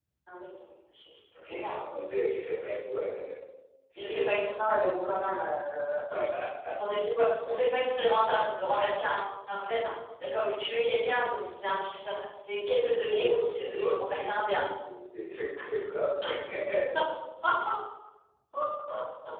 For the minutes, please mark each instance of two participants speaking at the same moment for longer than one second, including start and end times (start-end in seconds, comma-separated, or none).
13.0-14.6